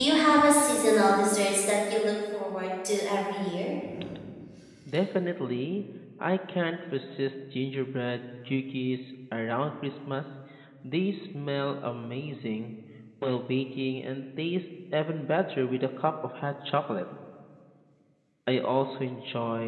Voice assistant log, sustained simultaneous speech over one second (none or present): none